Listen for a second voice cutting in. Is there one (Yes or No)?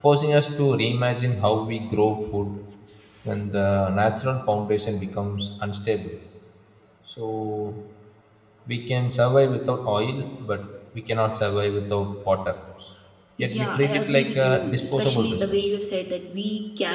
Yes